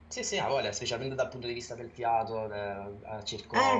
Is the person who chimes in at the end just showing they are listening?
Yes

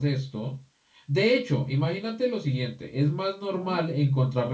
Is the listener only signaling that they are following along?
Yes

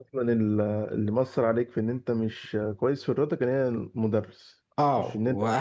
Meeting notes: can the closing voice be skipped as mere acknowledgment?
No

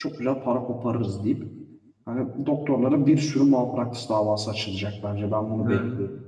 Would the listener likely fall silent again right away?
No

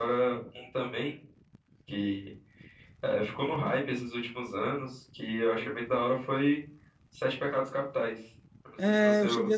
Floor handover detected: Yes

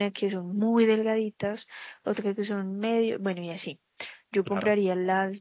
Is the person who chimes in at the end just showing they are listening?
Yes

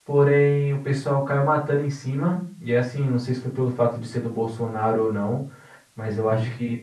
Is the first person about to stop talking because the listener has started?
No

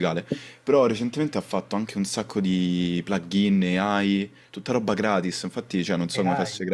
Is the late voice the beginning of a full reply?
No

